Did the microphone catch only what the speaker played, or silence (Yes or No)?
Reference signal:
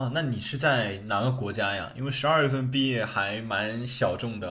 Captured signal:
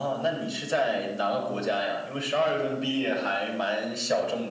Yes